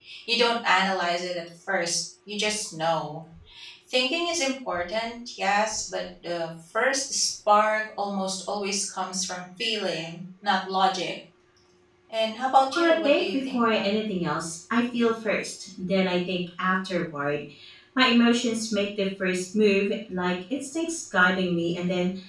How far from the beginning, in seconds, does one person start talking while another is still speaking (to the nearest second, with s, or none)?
13 s